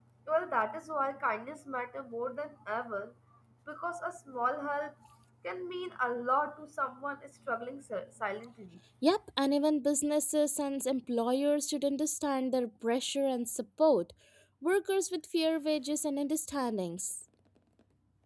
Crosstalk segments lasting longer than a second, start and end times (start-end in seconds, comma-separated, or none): none